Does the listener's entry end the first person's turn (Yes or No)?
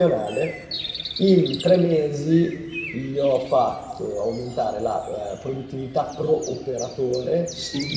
No